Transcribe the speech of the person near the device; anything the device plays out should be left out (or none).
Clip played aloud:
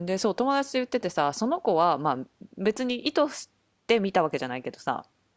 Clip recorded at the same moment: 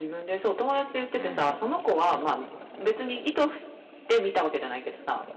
うん。もちろん。う